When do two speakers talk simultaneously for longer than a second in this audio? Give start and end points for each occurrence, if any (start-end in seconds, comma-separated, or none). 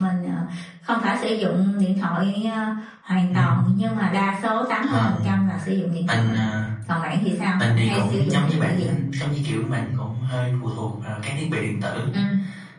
7.6-8.9